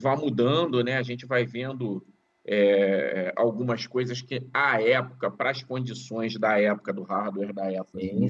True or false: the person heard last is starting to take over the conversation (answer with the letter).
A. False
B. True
A